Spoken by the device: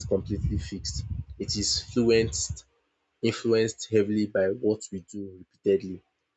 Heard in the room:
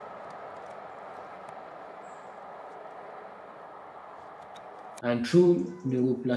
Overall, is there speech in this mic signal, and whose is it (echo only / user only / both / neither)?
user only